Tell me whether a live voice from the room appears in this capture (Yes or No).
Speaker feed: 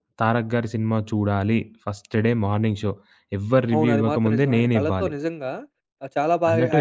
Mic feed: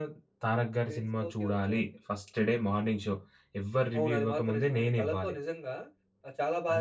Yes